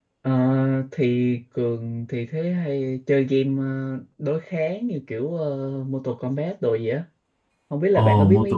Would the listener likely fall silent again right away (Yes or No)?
No